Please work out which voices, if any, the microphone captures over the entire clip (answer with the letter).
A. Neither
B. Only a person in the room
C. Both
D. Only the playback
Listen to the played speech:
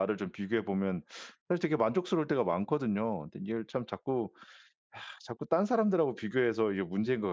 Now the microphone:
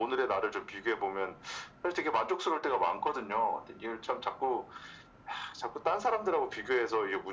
D